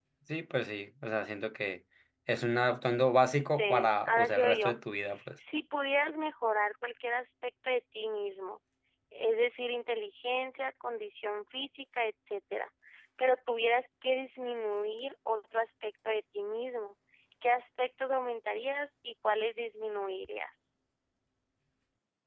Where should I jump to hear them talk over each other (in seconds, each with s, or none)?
3.6 s